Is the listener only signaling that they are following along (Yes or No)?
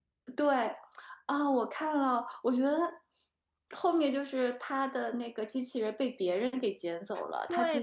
No